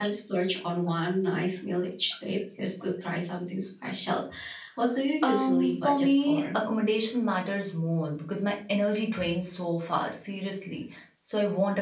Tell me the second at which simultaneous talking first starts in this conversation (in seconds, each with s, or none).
5.2 s